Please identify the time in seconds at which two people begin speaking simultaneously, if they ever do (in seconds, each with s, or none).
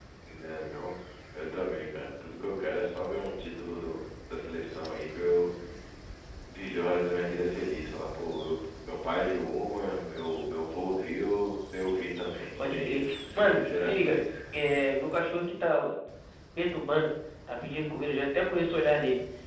12.6 s